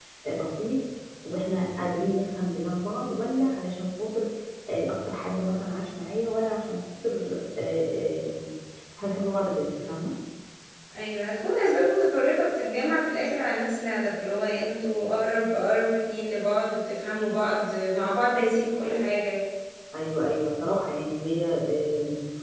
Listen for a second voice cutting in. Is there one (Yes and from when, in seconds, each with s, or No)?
No